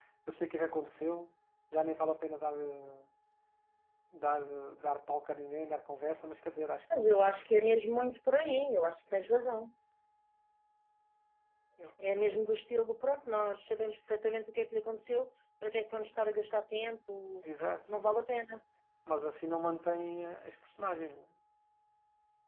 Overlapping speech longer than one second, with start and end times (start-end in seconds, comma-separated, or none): none